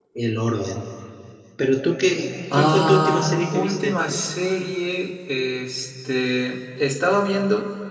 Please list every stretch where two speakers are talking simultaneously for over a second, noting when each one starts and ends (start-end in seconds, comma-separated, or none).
2.5-4.0